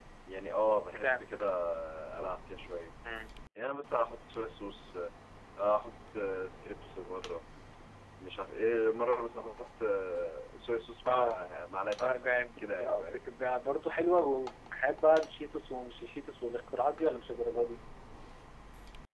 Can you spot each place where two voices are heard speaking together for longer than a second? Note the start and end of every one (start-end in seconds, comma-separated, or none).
12.0-13.2